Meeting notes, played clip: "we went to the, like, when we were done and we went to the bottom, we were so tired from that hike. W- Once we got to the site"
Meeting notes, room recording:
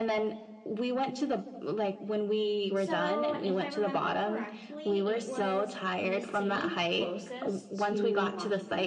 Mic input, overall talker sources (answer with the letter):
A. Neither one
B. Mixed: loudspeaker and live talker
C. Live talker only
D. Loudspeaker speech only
B